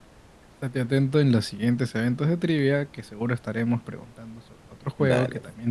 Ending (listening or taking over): taking over